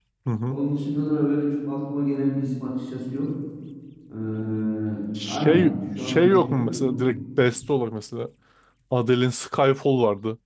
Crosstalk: present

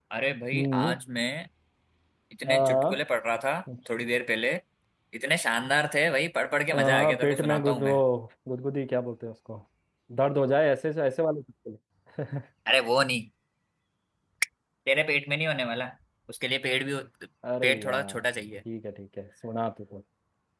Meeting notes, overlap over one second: present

